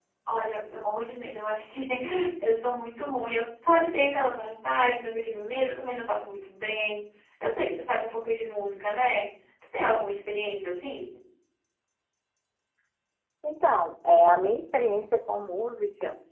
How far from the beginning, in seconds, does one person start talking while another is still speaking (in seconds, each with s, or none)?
none